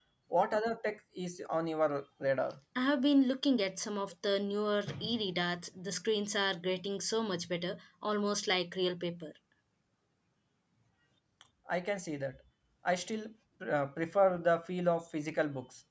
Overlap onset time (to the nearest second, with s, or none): none